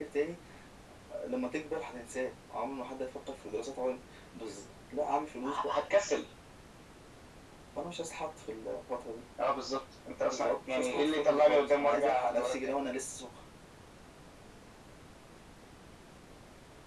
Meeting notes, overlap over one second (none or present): present